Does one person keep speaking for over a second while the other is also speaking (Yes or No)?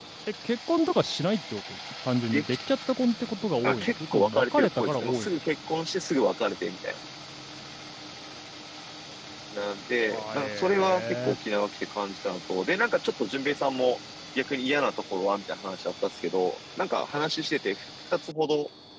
Yes